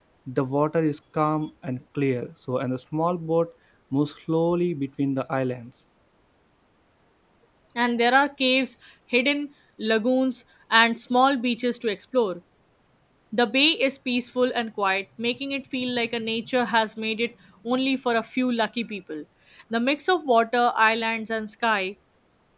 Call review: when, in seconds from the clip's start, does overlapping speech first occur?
none

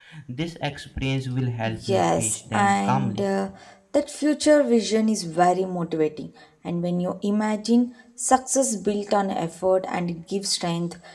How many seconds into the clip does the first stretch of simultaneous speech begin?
1.6 s

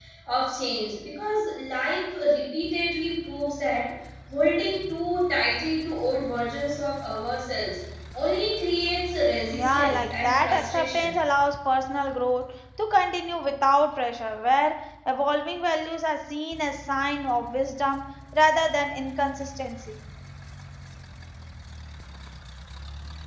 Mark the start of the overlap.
9.5 s

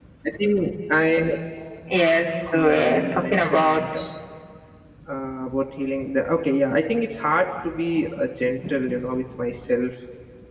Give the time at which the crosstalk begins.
2.5 s

